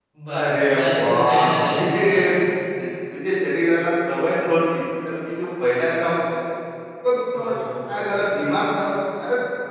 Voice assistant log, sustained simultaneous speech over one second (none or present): present